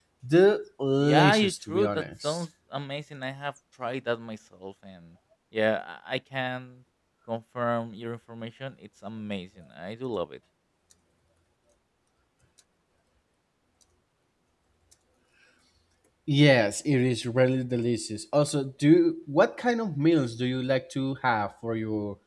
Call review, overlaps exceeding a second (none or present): present